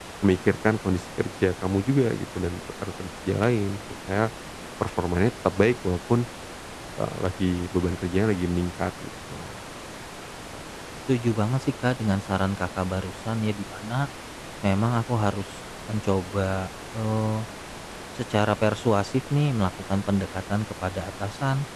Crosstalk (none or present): none